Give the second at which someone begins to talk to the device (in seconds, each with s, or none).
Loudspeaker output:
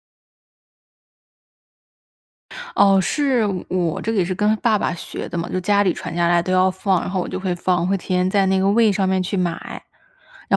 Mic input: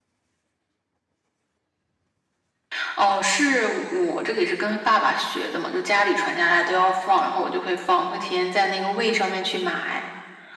none